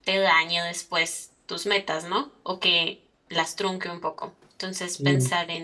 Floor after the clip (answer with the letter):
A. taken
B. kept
B